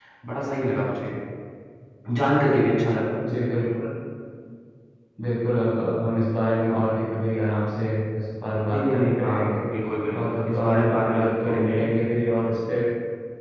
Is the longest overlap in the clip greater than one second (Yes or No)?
Yes